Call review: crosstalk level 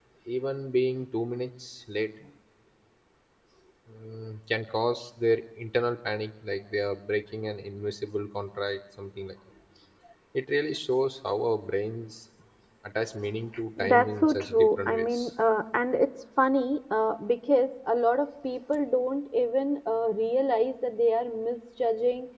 present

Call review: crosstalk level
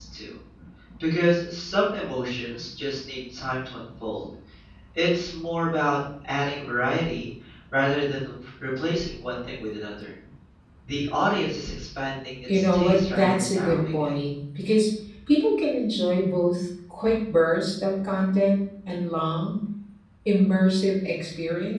present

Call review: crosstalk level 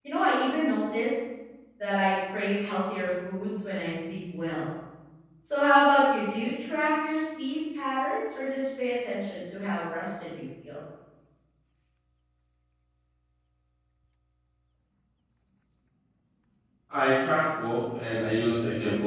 none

